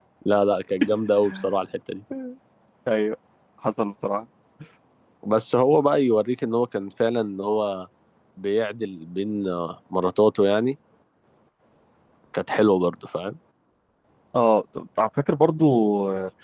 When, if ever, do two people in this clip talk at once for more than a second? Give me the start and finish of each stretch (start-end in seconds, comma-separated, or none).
none